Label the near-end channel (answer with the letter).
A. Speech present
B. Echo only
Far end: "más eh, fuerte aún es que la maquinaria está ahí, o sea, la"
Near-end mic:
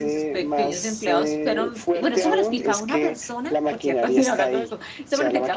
A